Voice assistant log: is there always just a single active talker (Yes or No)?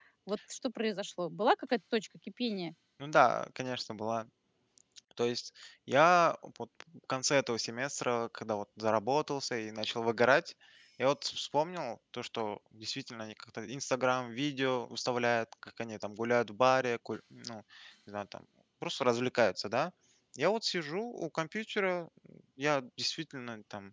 Yes